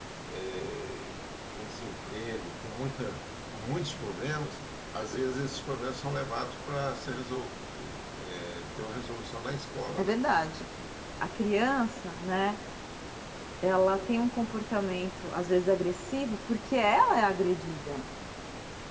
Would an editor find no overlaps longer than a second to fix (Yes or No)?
Yes